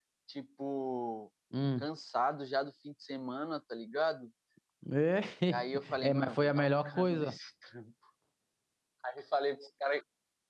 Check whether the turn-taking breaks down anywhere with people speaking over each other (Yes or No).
Yes